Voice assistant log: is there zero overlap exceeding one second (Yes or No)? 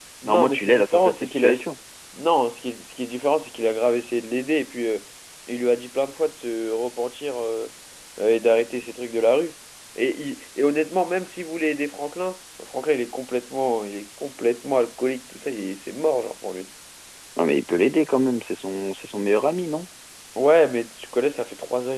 No